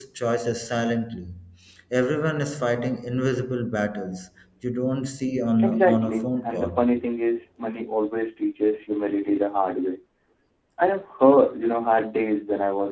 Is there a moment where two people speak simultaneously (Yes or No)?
Yes